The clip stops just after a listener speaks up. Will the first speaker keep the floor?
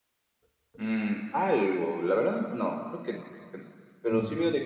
Yes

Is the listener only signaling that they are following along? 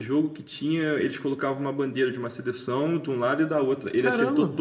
Yes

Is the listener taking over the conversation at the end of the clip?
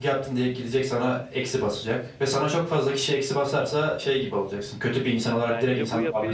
Yes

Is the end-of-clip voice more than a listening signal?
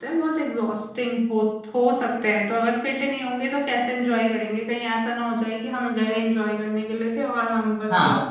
Yes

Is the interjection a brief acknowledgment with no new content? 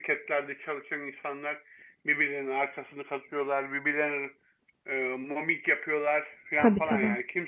Yes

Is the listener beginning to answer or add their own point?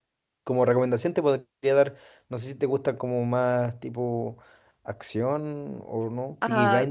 Yes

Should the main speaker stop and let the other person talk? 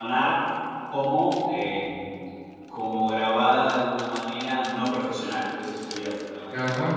Yes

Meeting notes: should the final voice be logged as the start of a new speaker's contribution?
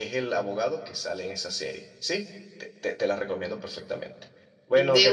No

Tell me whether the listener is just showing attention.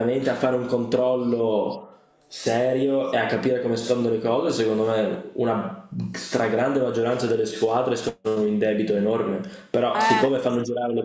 Yes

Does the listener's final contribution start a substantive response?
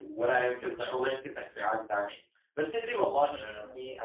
No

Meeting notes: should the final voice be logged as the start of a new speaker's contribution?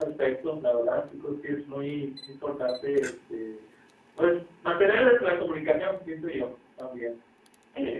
Yes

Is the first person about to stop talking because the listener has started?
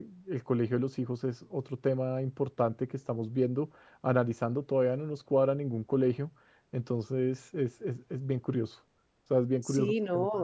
Yes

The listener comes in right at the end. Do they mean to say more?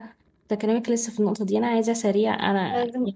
No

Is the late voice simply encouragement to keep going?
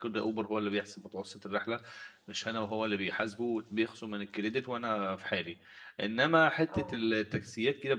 Yes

